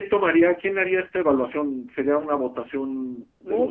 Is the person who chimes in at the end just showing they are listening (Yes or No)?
Yes